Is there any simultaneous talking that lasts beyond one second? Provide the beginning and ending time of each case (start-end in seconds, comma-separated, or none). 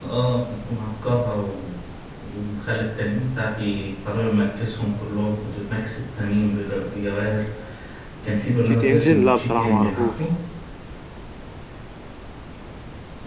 8.7-10.2